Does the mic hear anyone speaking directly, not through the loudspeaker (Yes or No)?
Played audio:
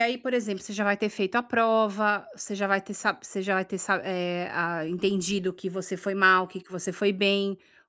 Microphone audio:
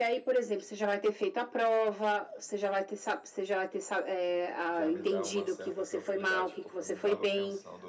Yes